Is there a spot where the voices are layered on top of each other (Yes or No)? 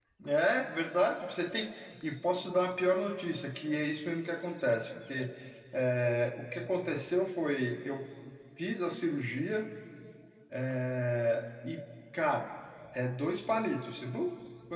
No